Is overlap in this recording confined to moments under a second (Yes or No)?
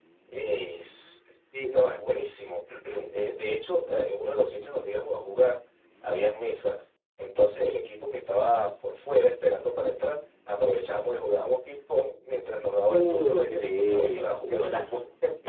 No